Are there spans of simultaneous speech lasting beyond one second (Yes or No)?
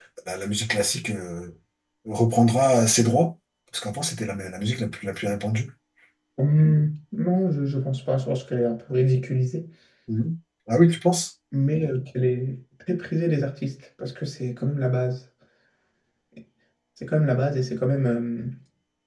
No